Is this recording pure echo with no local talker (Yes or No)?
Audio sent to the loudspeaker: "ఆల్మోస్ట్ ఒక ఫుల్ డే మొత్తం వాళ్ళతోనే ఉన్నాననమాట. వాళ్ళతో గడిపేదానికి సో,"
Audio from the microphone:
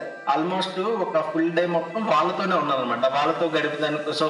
Yes